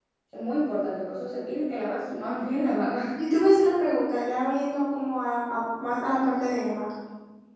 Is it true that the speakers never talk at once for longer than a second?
Yes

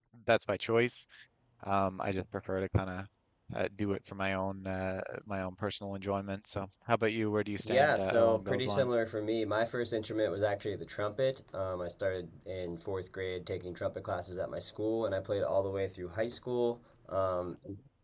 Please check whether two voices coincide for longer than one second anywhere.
Yes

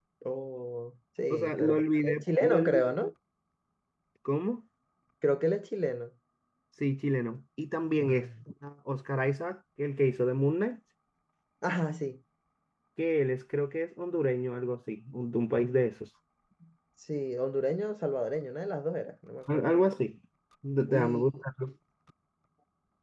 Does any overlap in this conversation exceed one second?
Yes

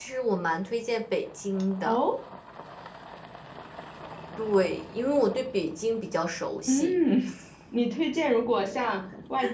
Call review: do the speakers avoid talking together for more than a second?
Yes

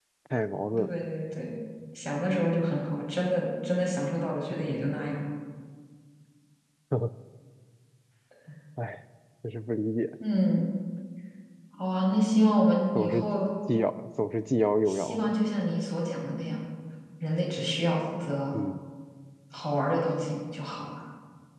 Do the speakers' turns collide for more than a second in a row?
No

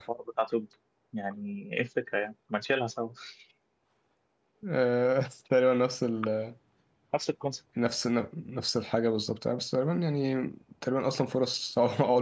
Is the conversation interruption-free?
Yes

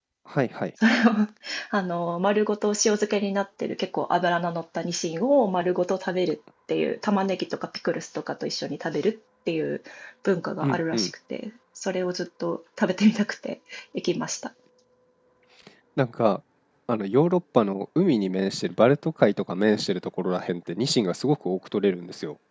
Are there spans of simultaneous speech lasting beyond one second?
No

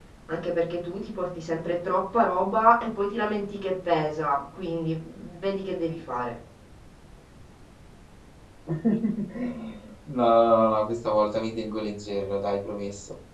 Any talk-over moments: No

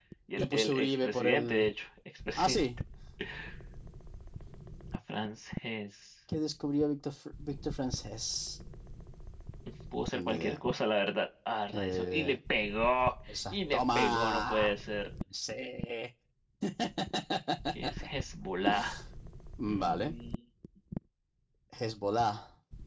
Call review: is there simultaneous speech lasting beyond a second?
Yes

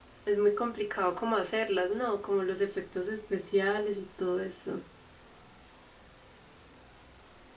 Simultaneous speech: No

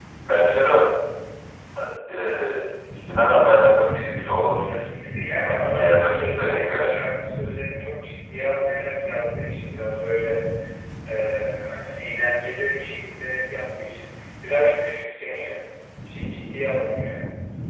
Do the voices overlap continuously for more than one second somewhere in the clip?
Yes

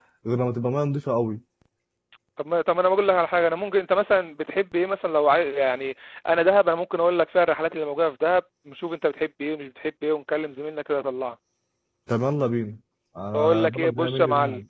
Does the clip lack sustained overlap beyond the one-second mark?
No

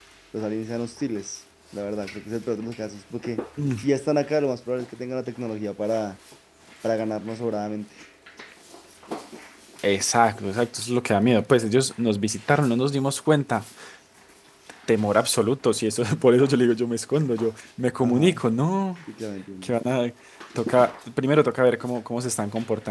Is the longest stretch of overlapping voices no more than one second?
Yes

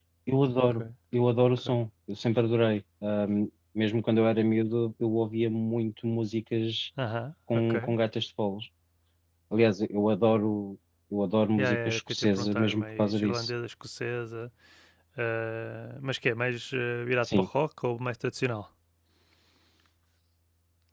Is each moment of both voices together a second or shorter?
No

